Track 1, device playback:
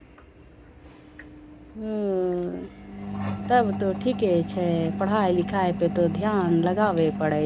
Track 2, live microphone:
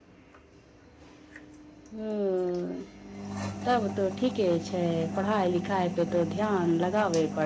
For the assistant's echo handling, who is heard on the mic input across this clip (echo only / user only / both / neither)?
echo only